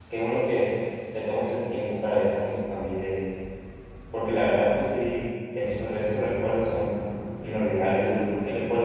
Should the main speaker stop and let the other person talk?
No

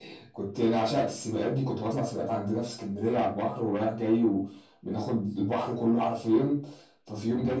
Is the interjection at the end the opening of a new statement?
No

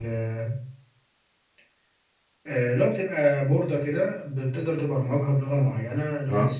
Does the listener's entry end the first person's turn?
No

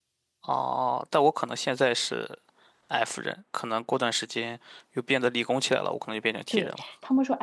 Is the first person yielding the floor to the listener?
Yes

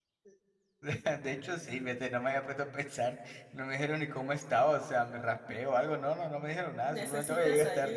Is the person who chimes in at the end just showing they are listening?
No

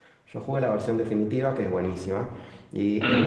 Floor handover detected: No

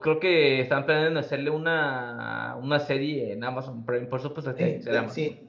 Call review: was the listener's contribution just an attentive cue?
No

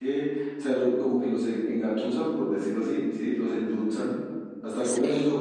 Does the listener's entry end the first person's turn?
No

